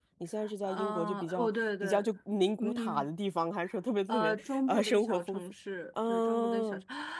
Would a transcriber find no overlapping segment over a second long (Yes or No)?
No